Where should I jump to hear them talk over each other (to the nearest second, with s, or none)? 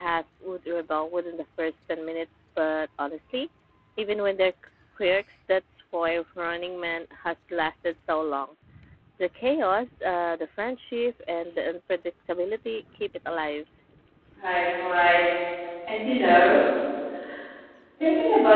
none